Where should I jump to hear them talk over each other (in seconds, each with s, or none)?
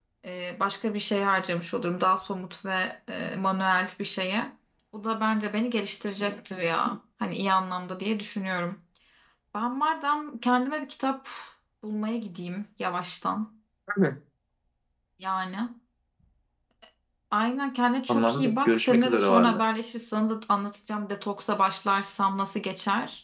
18.1 s